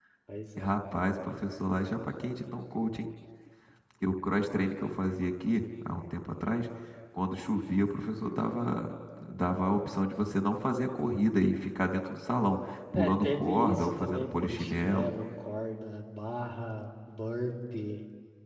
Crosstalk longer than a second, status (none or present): present